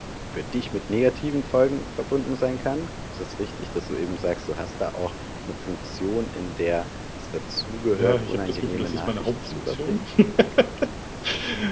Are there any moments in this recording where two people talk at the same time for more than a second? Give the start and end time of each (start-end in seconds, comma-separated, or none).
7.9-10.0